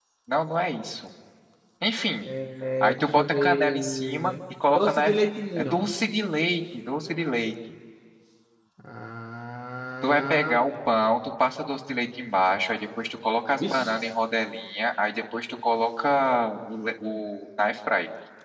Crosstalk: present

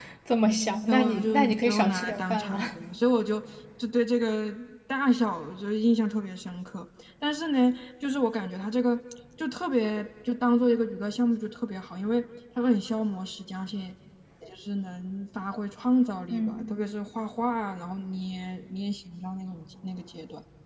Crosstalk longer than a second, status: present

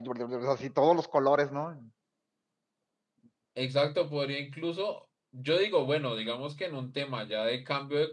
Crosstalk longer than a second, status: none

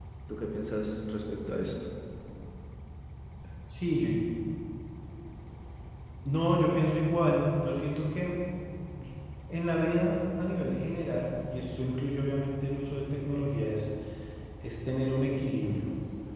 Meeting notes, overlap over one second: none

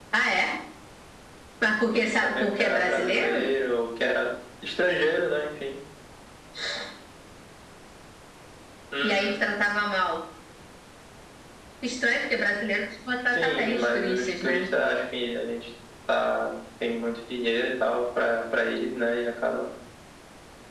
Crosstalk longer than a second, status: present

